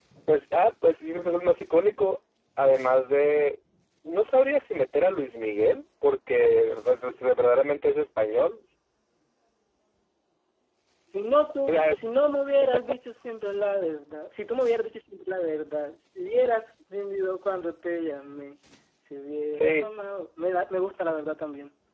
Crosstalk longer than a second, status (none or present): none